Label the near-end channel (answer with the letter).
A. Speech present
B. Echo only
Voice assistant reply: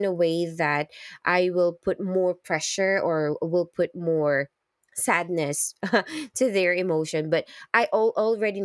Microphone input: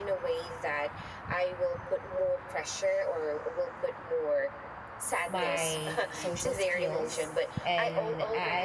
A